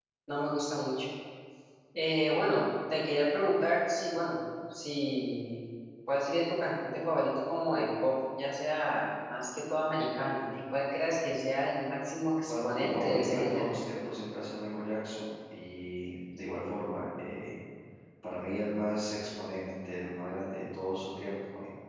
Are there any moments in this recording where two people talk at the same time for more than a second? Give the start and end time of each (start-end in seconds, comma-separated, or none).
12.4-13.7